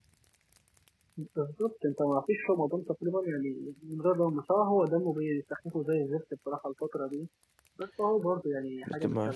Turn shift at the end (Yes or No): Yes